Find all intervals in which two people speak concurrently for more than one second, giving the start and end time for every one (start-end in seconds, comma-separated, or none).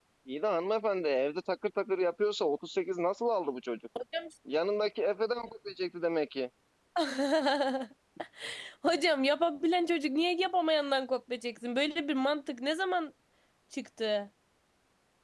none